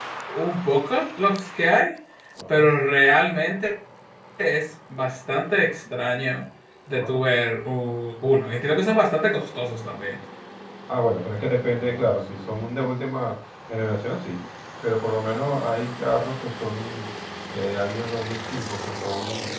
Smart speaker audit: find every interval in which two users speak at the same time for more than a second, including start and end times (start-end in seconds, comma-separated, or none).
none